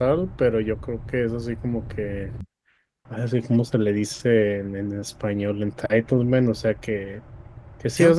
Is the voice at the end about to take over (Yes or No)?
No